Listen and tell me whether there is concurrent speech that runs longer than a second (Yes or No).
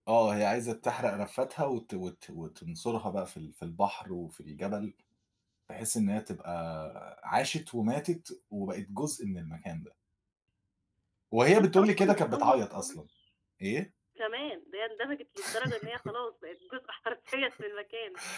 Yes